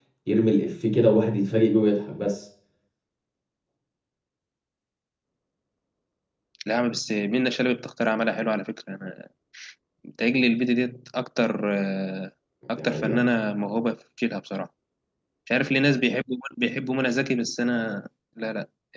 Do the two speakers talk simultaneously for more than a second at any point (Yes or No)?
No